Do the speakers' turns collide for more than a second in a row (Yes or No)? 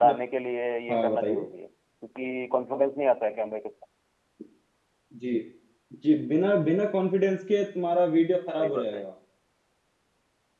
No